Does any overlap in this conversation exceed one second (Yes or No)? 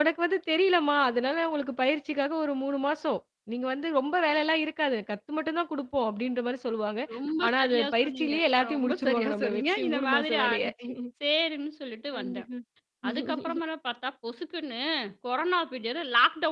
Yes